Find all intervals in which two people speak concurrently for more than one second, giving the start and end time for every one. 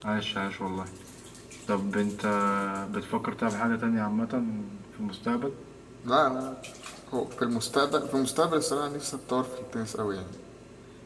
none

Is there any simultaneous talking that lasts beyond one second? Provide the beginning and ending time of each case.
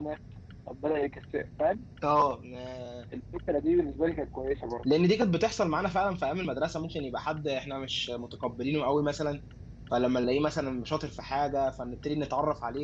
none

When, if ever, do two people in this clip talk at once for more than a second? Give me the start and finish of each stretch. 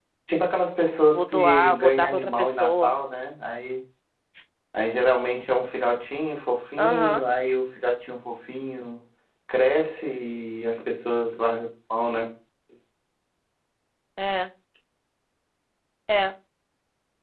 1.1-2.9

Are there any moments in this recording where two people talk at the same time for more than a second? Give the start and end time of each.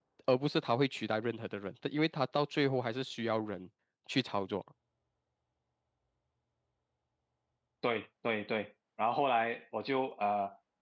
none

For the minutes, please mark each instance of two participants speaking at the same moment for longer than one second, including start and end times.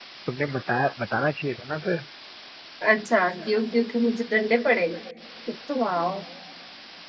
none

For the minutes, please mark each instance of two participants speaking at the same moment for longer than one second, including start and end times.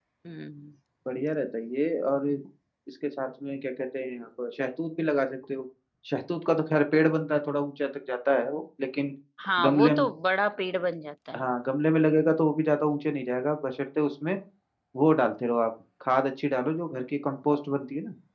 none

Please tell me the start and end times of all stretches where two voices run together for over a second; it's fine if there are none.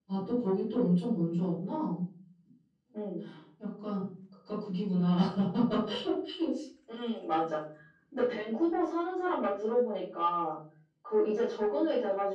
none

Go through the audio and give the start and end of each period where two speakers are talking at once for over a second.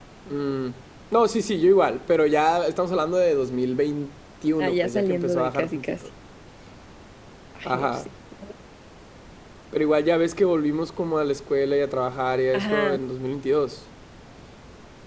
4.6-6.0

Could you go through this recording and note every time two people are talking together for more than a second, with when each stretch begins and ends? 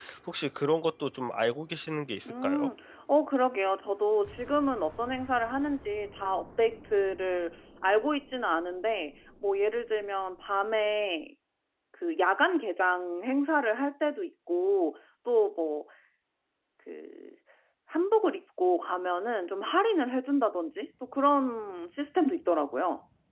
none

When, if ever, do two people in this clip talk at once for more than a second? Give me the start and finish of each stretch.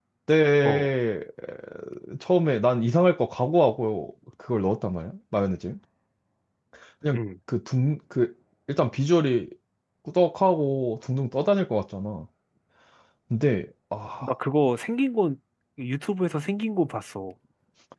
none

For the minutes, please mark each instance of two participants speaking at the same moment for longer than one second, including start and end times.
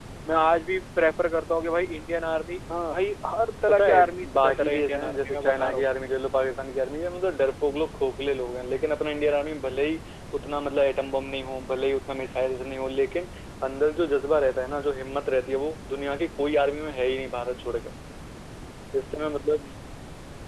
3.7-5.8

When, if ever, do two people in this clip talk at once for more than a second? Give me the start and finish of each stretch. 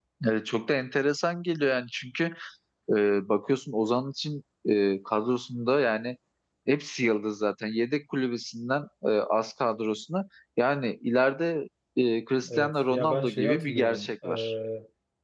12.6-14.5

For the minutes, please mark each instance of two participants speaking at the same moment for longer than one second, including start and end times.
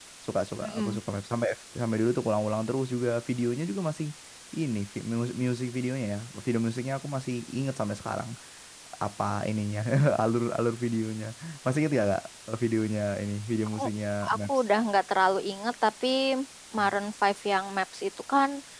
none

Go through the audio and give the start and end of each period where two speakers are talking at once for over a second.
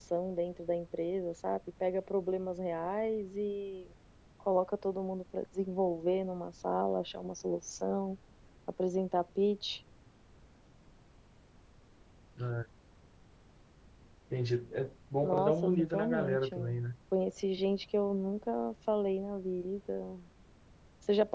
15.2-16.8

